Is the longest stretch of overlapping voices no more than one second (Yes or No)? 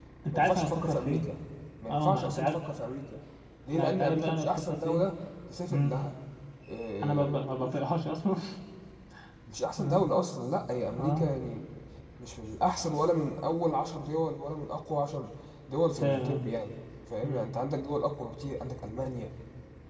No